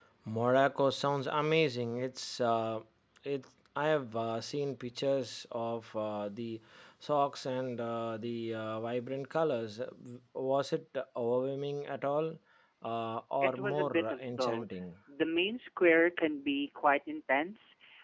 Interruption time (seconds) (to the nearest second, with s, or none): 13 s